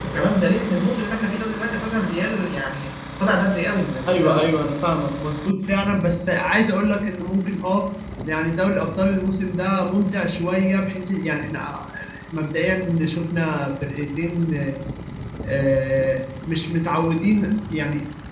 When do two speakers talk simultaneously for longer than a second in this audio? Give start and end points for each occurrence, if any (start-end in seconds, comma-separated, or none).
none